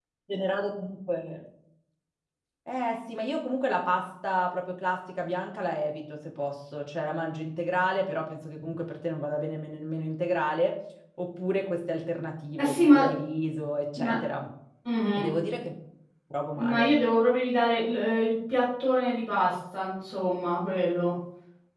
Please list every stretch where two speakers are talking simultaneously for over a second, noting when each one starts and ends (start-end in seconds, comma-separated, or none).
none